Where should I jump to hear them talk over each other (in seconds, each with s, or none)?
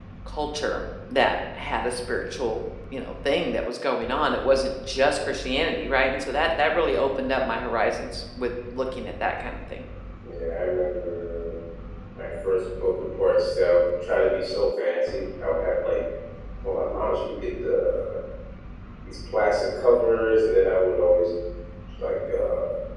none